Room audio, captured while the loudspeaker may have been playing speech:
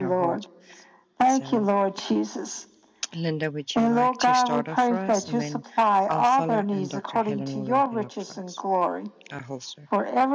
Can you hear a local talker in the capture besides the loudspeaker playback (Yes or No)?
Yes